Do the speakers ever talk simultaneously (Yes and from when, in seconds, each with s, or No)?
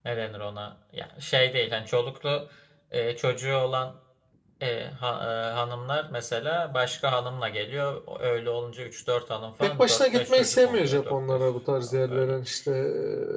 Yes, from 9.6 s